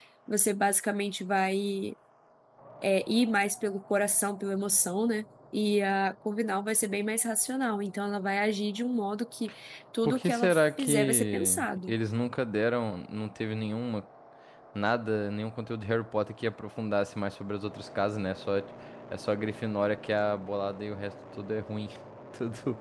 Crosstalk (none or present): present